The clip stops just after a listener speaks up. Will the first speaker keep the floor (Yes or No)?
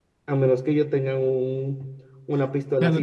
No